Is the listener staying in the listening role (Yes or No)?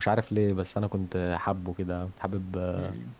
No